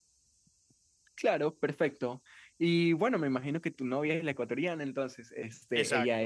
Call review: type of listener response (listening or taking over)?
listening